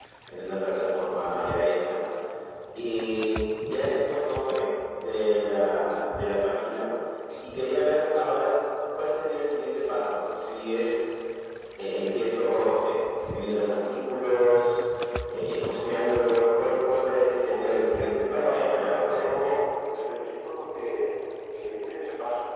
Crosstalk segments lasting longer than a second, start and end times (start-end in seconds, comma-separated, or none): 17.5-19.5